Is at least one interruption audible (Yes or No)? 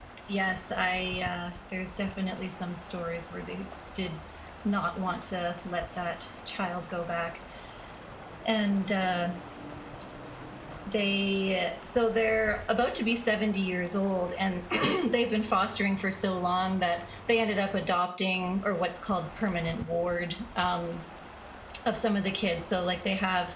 No